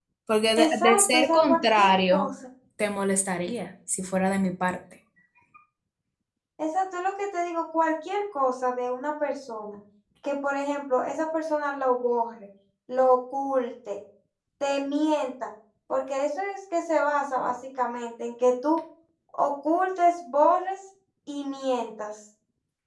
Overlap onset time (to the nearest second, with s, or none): 1 s